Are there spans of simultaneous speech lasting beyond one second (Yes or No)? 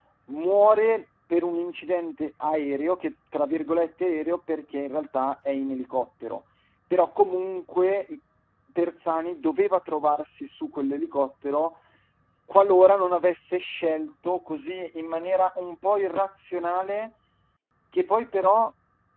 No